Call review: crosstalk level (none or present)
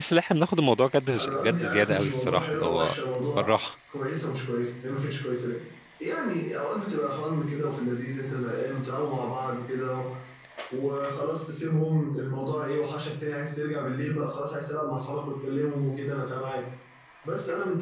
present